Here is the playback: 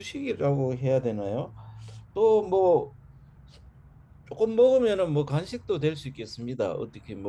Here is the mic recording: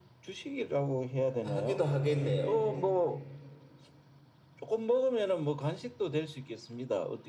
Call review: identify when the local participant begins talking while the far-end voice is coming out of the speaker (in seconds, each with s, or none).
1.4 s